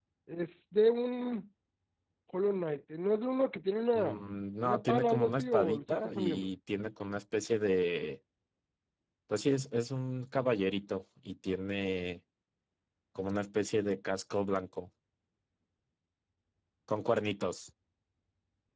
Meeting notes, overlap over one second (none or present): present